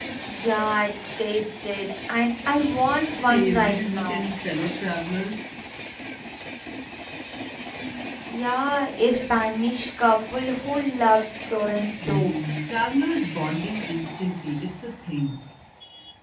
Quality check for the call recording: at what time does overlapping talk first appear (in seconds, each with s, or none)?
3.0 s